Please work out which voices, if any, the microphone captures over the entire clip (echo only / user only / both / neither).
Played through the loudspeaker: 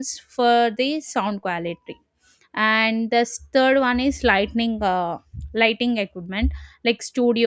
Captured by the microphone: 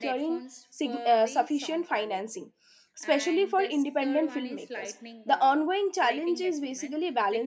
both